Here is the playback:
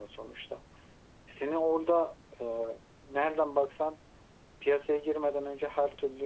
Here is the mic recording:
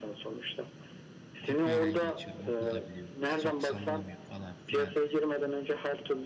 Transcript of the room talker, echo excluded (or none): kopyayla geçiyorum okulda biliyor çok sallamıyor falan filan.